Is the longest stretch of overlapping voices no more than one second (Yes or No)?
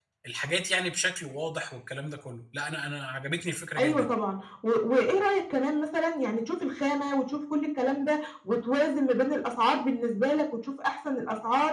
Yes